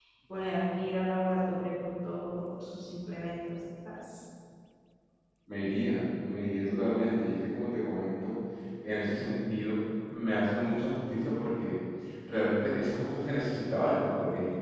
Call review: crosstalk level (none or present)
none